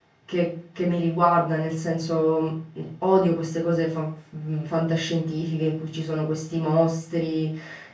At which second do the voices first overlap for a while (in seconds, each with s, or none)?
none